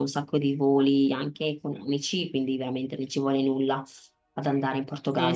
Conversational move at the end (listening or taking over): taking over